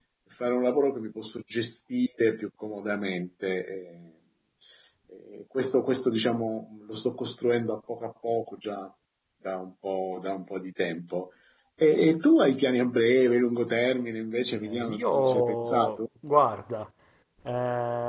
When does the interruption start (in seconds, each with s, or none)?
14.5 s